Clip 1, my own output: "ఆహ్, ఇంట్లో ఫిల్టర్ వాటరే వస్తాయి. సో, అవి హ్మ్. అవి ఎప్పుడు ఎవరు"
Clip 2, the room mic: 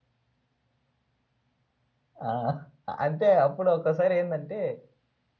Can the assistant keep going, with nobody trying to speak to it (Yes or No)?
No